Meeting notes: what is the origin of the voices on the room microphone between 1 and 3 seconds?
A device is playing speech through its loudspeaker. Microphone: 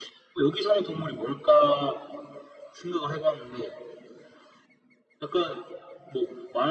echo only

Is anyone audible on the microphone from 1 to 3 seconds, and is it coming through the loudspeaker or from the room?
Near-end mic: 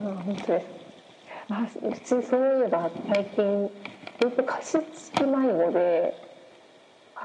echo only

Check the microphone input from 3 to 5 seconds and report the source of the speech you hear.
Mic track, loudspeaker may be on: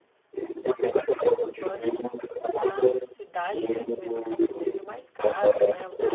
both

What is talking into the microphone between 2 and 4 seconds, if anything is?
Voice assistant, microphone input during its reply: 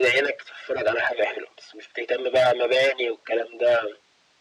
echo only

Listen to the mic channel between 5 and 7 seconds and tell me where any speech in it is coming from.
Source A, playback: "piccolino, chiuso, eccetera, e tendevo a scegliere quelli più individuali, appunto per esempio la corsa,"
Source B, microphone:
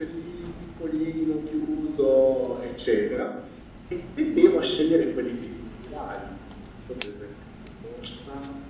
echo only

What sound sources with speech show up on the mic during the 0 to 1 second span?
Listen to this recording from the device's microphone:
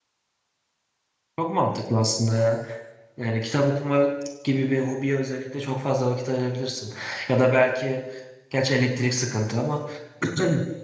neither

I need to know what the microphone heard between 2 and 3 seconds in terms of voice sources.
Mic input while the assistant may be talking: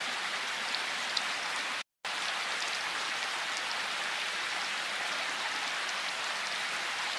neither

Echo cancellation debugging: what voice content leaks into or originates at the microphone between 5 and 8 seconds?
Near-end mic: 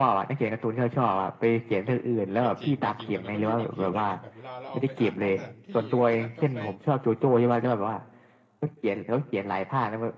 both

